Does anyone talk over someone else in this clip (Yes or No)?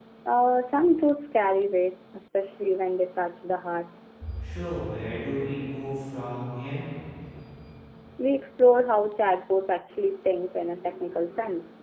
No